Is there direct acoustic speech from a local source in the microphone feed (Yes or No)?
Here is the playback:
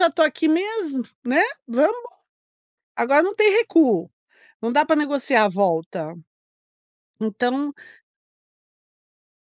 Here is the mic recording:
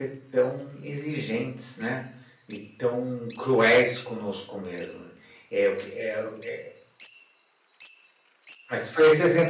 Yes